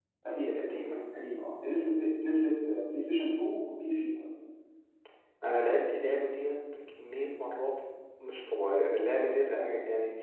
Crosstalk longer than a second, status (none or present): none